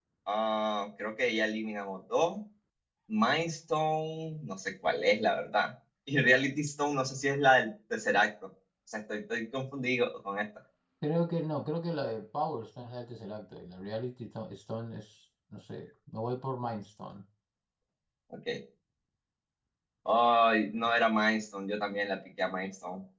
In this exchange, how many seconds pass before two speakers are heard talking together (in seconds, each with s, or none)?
none